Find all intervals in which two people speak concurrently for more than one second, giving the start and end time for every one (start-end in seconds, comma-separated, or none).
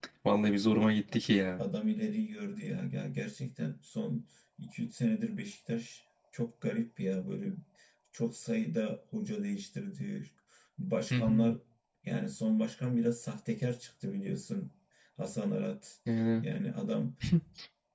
none